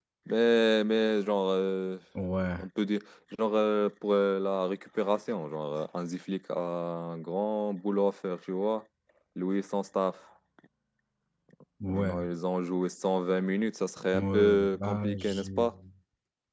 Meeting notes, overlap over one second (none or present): present